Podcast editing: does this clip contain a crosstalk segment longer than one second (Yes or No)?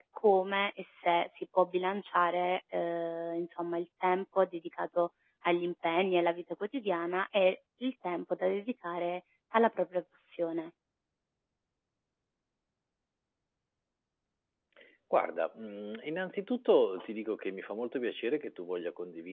No